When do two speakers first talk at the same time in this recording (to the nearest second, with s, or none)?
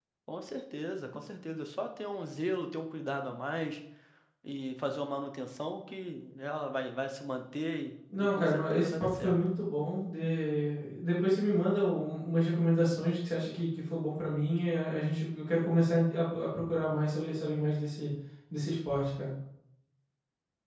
8 s